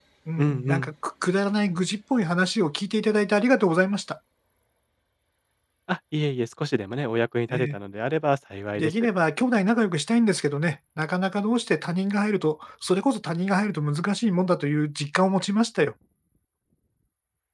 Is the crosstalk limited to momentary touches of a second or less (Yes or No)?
Yes